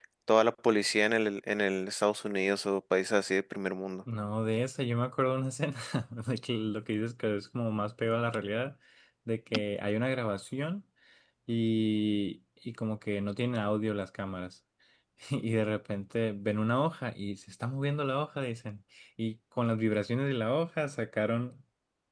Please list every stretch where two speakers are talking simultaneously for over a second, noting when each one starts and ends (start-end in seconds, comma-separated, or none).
none